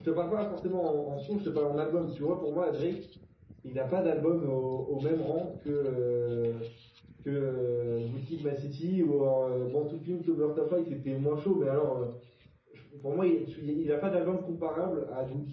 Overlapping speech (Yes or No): No